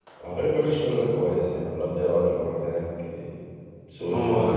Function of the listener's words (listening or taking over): taking over